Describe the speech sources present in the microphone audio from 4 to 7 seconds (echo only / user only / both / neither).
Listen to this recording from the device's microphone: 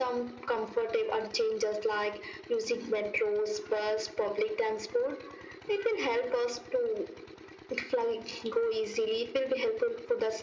echo only